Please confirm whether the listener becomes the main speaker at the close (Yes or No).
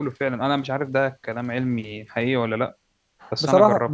Yes